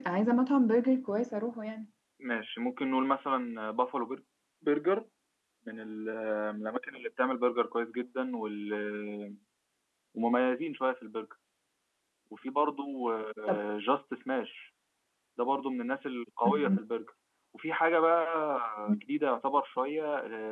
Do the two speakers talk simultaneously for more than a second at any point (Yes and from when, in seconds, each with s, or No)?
No